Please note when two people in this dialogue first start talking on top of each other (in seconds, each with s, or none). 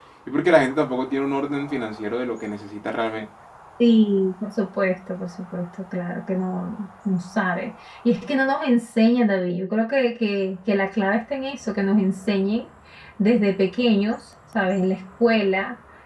none